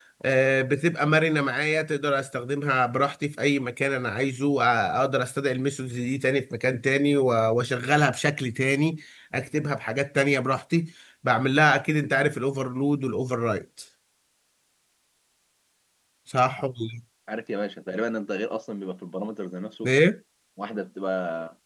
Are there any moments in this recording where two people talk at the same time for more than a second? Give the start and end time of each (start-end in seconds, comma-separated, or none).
none